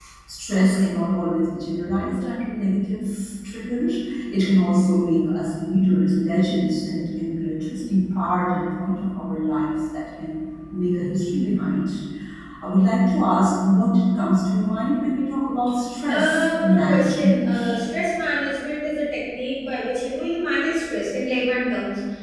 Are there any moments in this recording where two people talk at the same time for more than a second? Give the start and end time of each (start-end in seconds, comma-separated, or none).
16.1-17.6